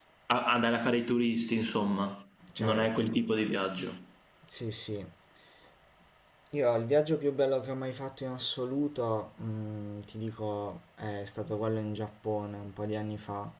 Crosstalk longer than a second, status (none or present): none